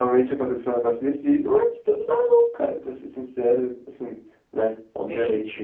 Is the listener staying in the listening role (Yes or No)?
No